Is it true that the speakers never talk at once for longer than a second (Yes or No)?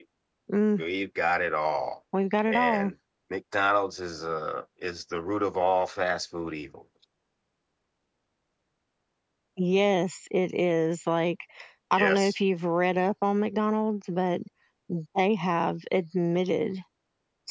Yes